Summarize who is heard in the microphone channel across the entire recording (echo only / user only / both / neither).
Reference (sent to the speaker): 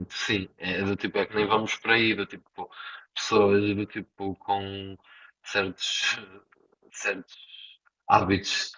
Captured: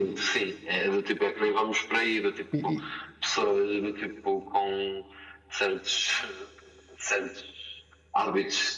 both